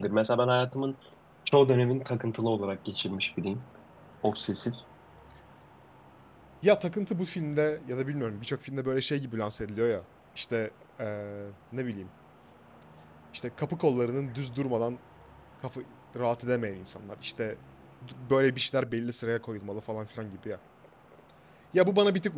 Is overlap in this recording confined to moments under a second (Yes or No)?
Yes